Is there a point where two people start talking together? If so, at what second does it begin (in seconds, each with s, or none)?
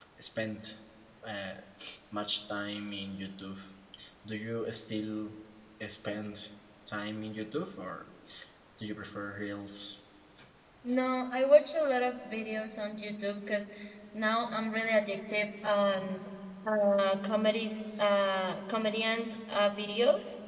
none